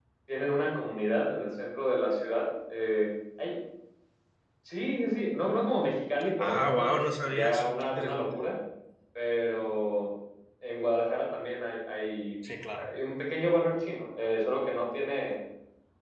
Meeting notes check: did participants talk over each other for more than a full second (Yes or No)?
Yes